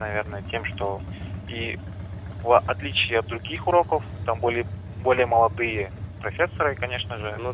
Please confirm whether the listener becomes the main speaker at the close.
No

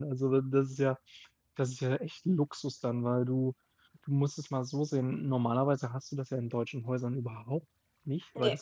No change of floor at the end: Yes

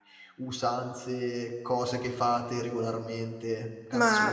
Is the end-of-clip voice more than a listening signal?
Yes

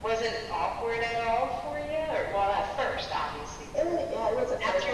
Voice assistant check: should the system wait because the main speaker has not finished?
No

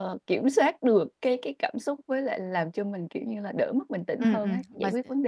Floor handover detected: Yes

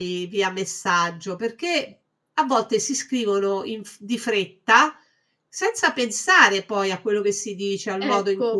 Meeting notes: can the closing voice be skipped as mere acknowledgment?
No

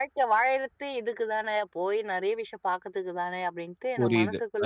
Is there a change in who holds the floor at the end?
Yes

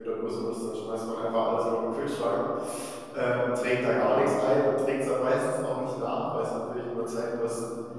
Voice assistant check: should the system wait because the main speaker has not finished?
Yes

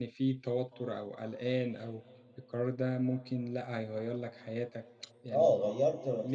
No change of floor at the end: No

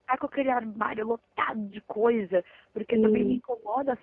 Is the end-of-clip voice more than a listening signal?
No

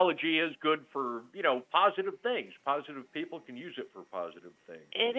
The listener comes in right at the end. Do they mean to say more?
Yes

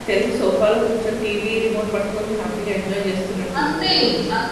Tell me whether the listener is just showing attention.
No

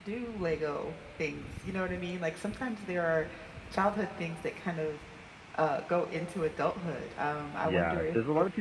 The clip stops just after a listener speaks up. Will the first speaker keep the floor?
No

